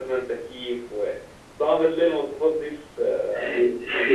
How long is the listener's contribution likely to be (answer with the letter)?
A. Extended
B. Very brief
A